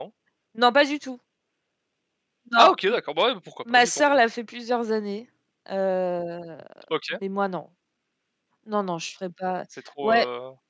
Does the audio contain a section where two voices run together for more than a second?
No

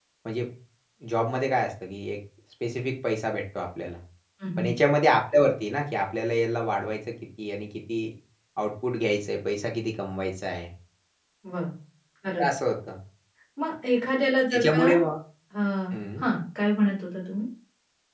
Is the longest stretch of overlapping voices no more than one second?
Yes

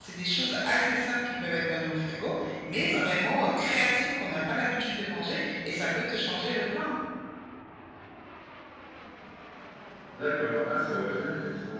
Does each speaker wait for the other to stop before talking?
Yes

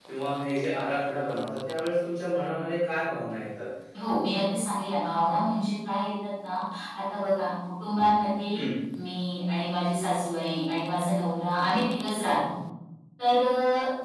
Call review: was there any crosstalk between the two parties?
No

